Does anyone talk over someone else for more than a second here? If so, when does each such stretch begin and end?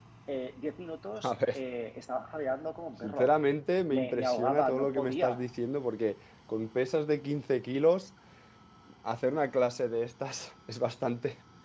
3.9-5.4

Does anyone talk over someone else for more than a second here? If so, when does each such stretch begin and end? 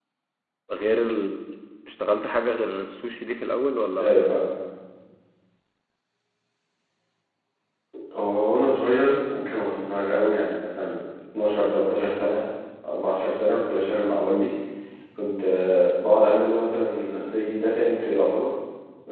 none

